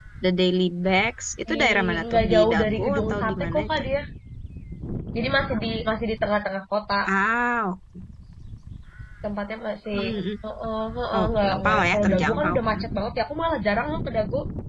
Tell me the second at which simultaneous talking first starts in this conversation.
1.5 s

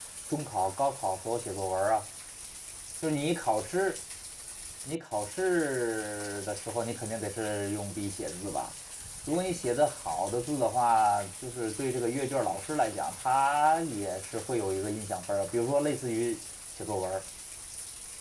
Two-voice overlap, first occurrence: none

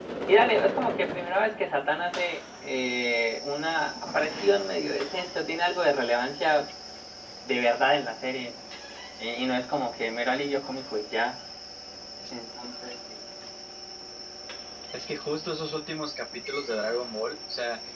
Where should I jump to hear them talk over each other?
none

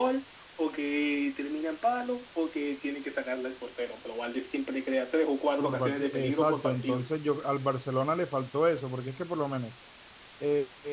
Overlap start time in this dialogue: 5.6 s

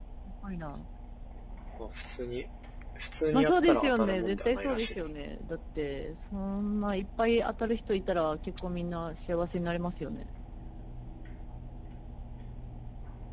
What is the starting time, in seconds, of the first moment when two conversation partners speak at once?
3.3 s

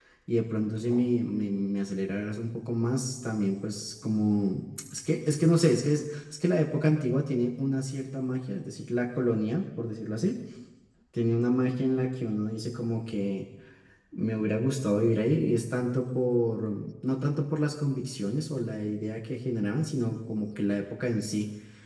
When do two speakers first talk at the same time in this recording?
none

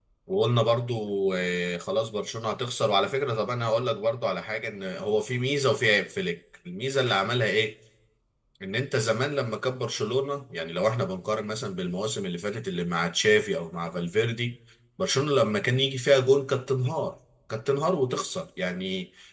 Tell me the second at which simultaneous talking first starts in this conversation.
none

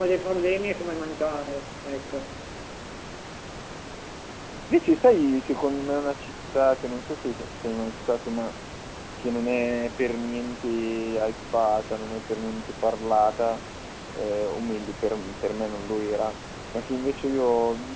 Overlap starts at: none

